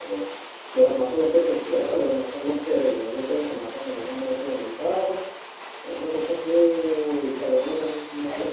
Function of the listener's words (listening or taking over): taking over